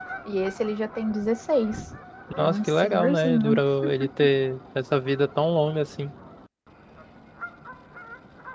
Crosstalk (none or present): present